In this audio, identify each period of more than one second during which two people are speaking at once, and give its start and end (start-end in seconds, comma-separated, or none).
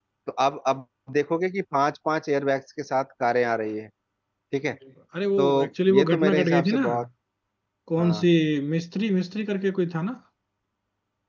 5.4-6.8